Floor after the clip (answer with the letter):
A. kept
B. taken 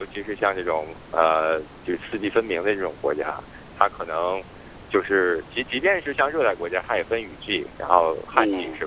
A